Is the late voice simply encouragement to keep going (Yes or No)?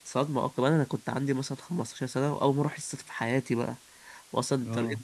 Yes